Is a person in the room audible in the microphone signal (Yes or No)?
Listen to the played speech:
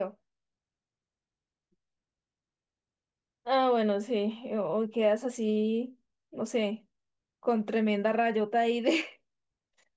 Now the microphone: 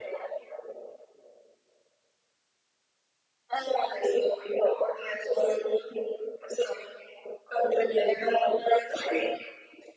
No